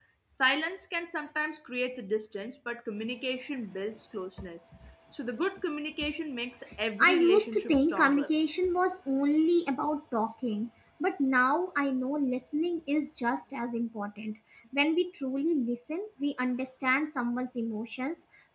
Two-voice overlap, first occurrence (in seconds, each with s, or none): 7.0 s